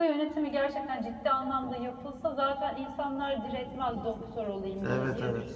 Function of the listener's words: taking over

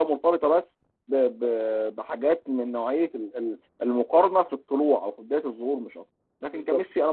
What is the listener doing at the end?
listening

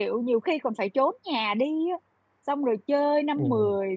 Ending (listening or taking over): listening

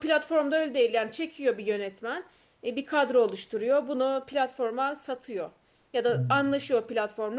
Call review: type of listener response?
listening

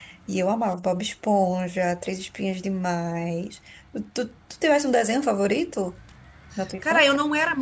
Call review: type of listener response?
taking over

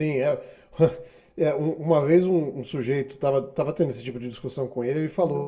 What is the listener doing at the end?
listening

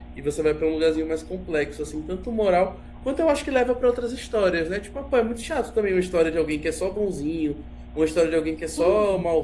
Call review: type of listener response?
listening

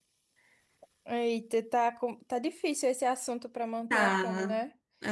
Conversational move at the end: taking over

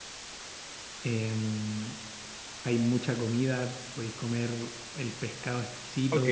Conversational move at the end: taking over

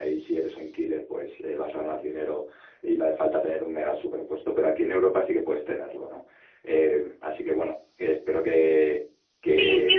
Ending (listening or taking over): taking over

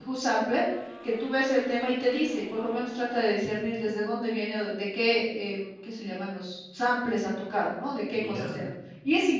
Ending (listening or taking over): listening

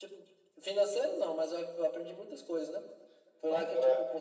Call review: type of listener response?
listening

